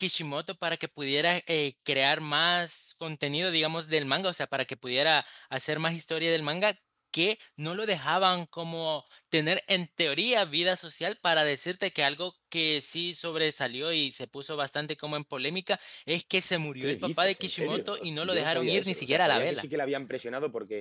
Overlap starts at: 16.8 s

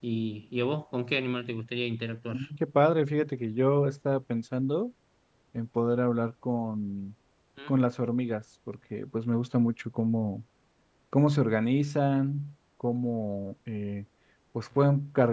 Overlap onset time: none

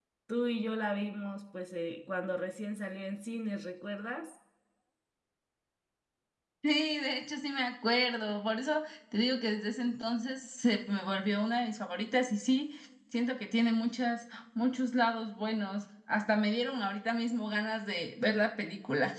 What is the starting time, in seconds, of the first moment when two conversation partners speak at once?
none

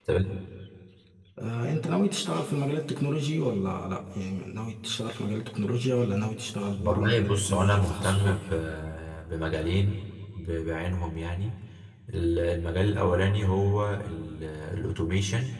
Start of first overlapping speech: 6.8 s

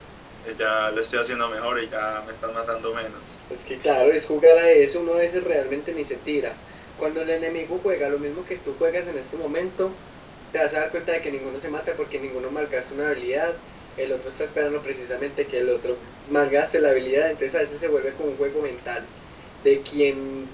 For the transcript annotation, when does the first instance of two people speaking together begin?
none

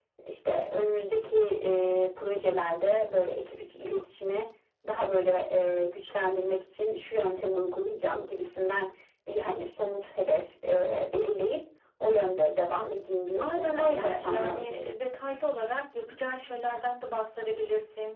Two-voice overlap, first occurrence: 13.4 s

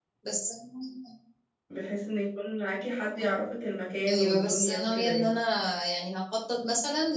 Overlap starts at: 4.1 s

